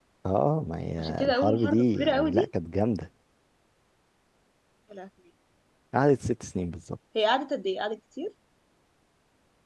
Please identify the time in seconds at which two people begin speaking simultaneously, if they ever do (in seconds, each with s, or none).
1.0 s